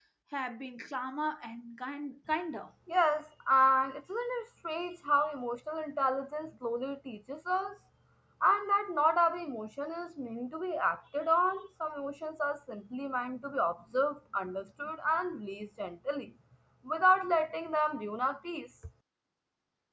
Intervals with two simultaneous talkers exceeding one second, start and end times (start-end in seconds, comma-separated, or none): none